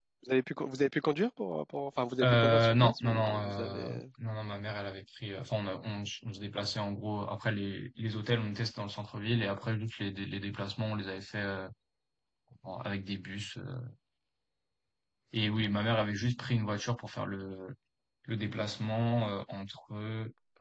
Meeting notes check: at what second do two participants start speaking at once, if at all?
2 s

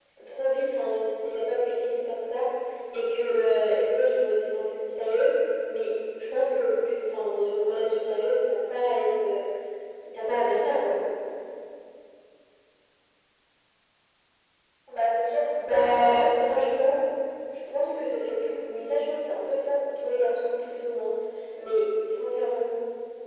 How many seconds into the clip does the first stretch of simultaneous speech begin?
16 s

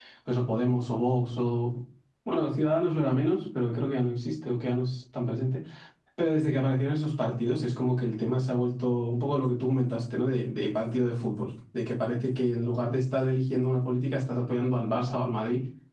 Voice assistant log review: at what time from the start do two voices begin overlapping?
none

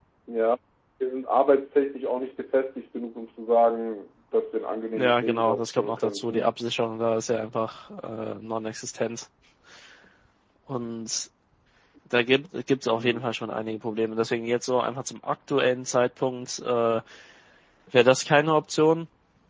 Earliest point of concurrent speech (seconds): 5 s

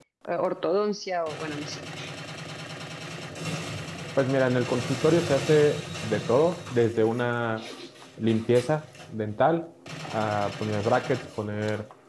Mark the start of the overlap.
none

